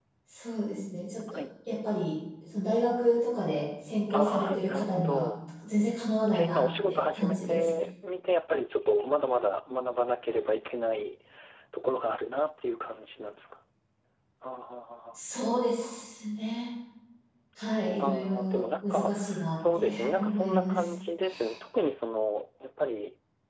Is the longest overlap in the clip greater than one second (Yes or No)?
Yes